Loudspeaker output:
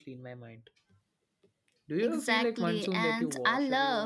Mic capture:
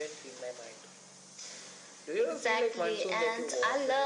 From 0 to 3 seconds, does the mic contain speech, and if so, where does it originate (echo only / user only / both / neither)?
echo only